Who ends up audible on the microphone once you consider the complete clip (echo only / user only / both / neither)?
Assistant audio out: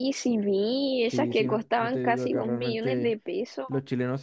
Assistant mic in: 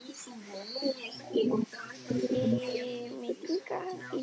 both